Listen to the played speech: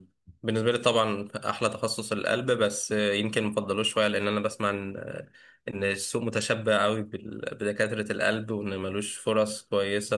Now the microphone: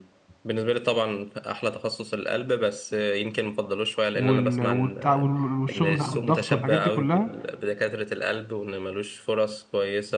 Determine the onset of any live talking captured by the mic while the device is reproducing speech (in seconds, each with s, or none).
4.1 s